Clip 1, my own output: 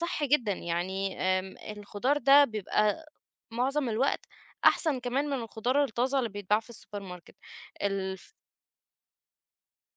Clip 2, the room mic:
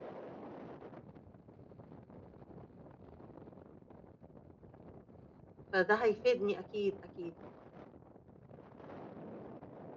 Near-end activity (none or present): present